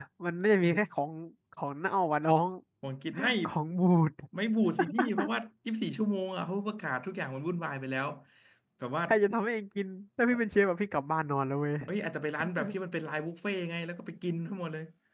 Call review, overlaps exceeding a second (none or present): none